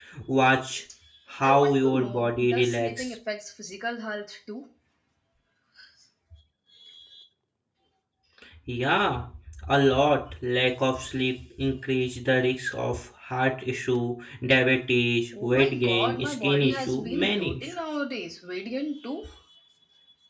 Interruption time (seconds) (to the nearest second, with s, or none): 1 s